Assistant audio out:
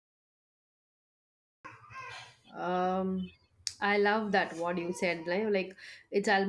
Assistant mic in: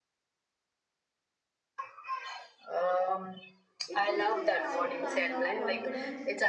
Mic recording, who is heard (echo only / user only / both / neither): both